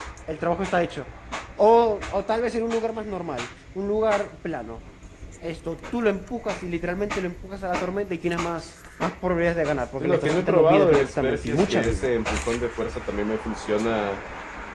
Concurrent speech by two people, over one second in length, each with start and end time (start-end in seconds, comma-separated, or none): 10.0-12.1